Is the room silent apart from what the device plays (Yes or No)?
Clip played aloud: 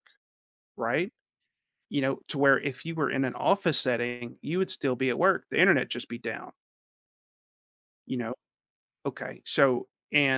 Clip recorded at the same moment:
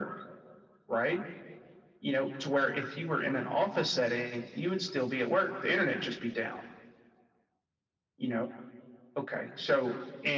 Yes